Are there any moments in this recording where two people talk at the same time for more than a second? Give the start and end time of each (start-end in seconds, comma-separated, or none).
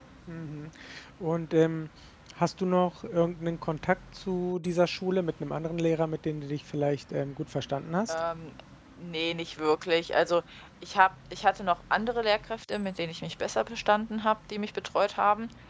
none